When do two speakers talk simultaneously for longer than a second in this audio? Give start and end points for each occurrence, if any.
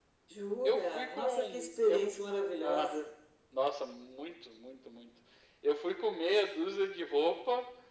0.6-2.0

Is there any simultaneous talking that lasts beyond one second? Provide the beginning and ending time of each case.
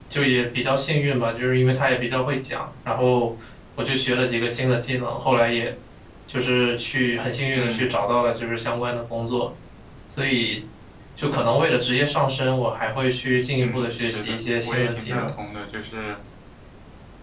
13.6-15.3

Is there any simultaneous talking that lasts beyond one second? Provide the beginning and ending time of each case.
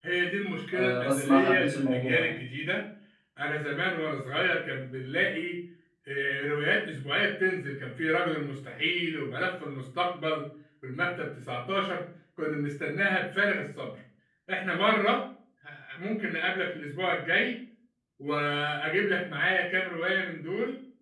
0.7-2.3

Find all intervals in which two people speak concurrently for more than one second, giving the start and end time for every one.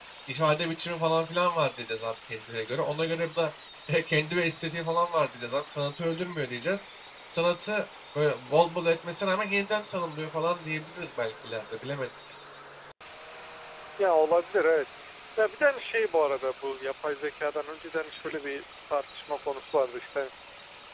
none

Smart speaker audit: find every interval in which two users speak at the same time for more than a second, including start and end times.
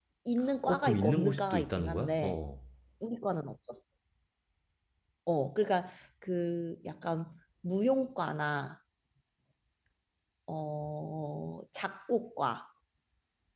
0.7-2.4

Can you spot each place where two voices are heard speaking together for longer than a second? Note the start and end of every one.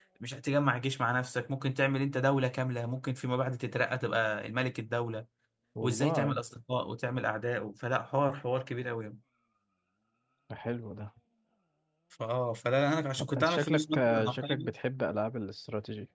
13.4-14.7

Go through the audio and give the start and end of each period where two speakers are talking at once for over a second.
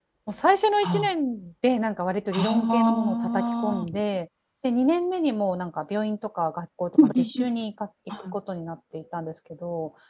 2.3-3.9

